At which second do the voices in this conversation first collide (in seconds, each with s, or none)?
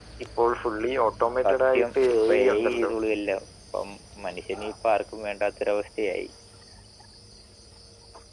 1.4 s